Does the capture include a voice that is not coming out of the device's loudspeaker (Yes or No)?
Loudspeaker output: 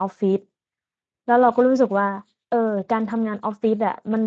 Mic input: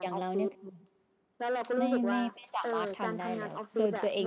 Yes